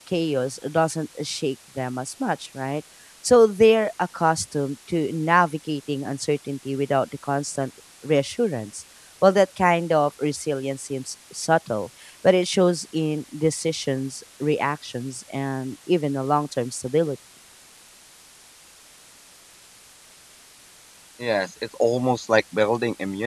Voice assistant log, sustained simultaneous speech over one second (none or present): none